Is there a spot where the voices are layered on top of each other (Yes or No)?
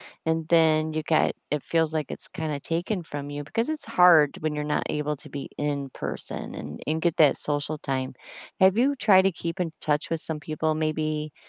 No